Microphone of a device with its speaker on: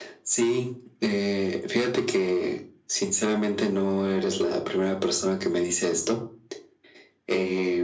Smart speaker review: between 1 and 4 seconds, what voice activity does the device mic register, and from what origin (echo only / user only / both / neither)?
echo only